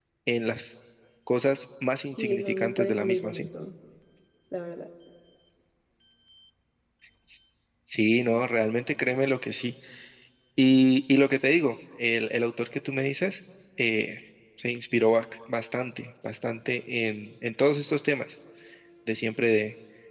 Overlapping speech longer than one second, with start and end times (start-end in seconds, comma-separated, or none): 2.0-3.5